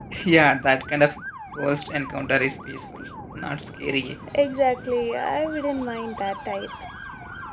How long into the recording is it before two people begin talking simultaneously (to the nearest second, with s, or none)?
none